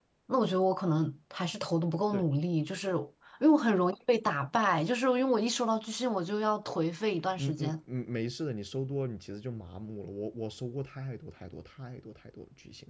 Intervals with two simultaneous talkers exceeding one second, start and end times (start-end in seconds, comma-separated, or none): none